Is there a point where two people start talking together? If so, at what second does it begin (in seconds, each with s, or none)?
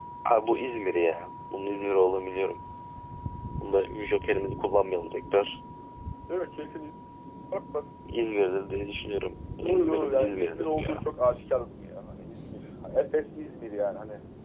9.6 s